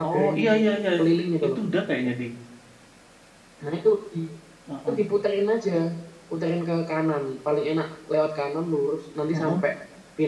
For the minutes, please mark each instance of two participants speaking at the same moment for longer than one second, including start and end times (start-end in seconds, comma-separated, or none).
none